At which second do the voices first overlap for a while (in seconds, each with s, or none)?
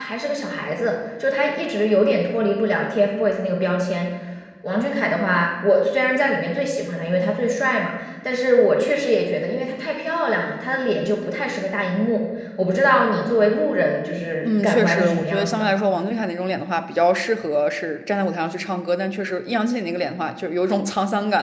14.4 s